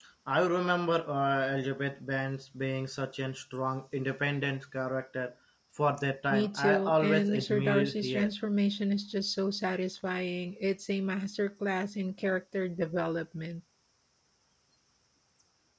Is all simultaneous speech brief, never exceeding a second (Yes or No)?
No